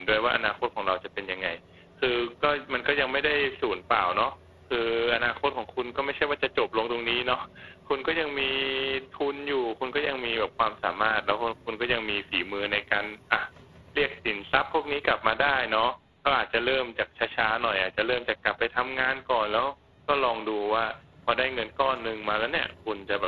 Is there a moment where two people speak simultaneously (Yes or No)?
No